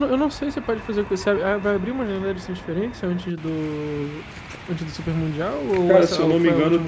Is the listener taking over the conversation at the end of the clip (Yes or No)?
Yes